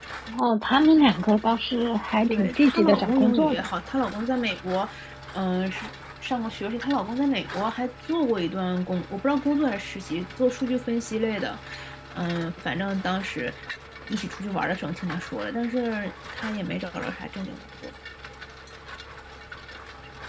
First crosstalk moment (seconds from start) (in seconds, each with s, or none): 2.3 s